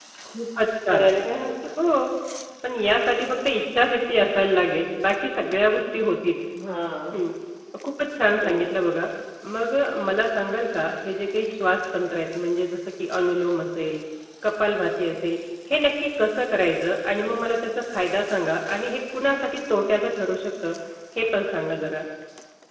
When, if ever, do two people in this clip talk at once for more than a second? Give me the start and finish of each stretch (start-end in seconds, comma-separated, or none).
none